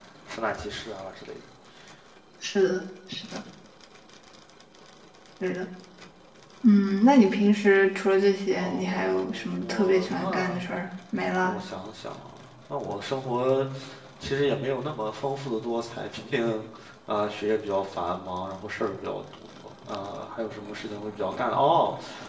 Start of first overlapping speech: 8.6 s

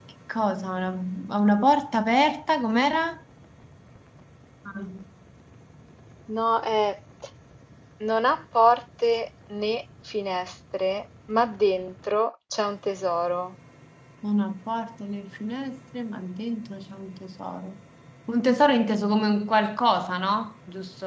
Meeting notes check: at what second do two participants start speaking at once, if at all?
none

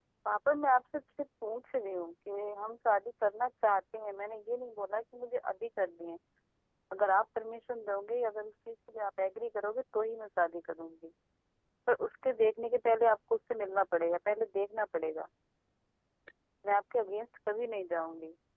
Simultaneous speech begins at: none

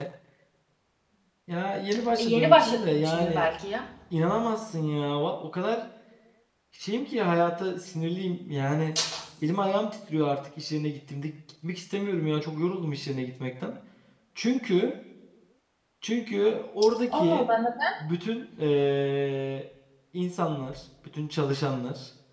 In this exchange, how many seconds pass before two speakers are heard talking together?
2.2 s

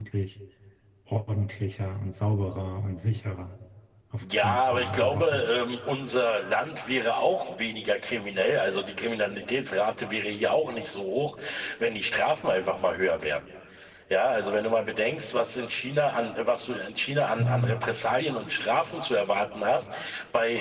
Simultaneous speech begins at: 4.2 s

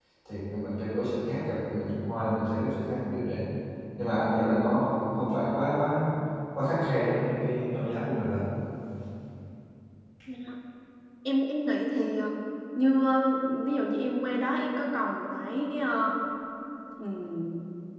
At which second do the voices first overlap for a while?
none

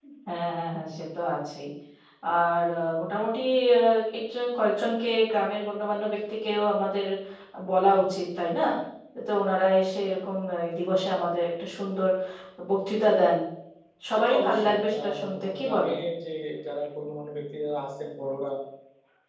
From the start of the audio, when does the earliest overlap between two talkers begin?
14.1 s

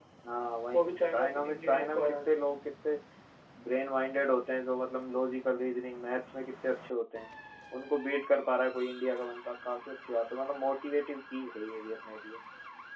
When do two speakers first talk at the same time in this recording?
0.7 s

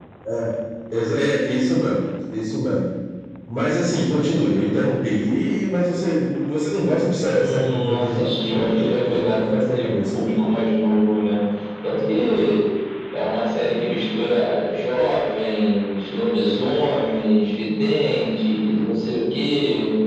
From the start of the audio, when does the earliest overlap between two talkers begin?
7.2 s

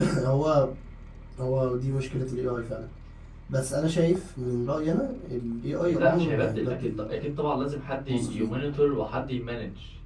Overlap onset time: 5.8 s

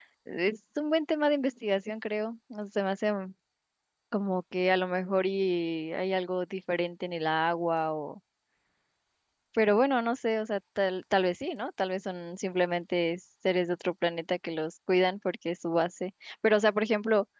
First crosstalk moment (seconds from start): none

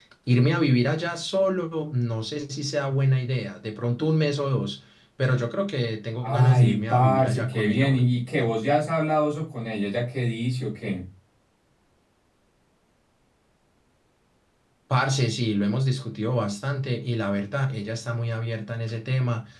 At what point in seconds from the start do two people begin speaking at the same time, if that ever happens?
6.2 s

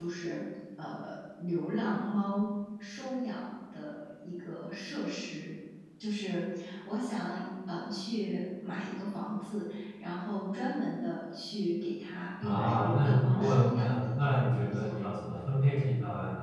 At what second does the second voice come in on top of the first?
12.4 s

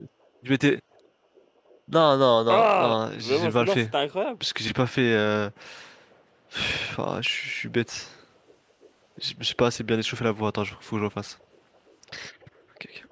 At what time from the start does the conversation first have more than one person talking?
2.5 s

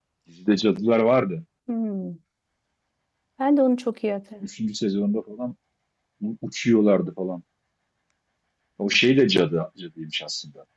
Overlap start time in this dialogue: none

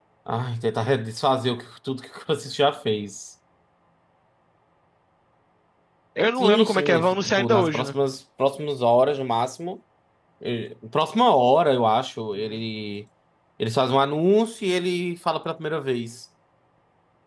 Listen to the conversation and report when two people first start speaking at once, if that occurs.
6.4 s

